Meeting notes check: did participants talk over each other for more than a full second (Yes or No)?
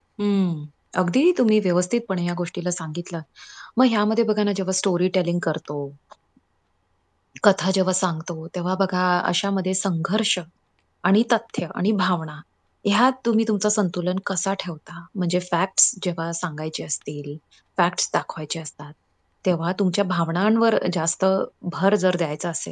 No